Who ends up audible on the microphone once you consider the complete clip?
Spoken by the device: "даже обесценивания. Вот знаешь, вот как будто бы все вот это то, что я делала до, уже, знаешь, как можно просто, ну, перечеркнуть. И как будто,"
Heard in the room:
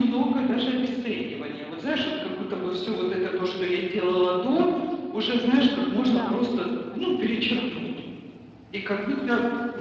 both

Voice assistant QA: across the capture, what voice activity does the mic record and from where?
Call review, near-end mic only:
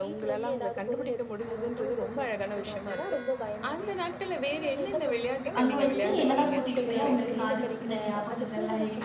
both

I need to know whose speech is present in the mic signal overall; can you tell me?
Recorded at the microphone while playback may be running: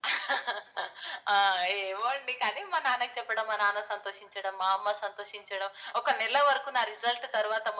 echo only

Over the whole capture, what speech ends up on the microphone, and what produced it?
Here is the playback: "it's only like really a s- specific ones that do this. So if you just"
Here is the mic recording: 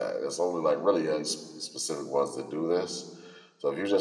echo only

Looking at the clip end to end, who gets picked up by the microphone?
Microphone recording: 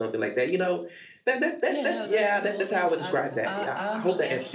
both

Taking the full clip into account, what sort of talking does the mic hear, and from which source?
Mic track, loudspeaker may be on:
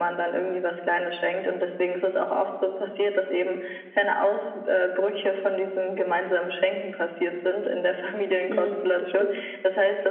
both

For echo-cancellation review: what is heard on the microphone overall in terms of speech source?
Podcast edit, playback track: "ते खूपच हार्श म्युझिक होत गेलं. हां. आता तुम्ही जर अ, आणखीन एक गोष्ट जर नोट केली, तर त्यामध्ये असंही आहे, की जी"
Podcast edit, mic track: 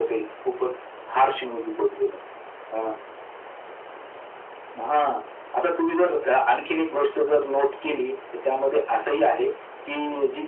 echo only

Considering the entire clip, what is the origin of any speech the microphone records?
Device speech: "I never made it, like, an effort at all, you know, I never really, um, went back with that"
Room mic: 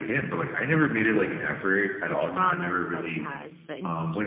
both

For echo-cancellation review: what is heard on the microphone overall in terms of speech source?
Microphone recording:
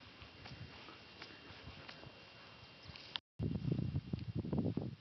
neither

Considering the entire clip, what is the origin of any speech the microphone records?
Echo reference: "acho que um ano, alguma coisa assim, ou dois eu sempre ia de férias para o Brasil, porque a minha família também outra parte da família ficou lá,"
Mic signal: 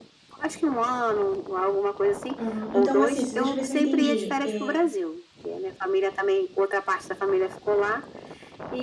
both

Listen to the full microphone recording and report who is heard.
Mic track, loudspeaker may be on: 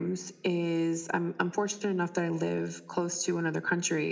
echo only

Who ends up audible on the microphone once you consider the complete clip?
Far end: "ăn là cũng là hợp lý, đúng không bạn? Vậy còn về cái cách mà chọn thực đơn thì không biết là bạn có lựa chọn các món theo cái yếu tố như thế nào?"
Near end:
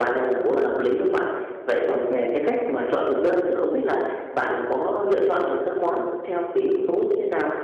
echo only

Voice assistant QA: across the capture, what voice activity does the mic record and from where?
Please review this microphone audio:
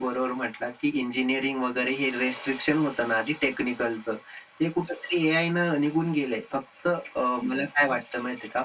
echo only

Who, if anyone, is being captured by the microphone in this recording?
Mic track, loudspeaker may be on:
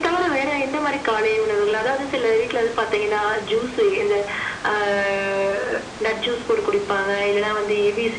echo only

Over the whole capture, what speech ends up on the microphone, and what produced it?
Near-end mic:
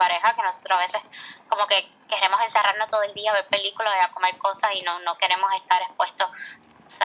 echo only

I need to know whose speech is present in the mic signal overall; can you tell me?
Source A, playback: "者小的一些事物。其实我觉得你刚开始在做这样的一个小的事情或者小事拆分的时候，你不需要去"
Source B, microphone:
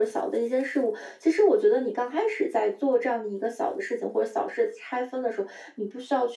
echo only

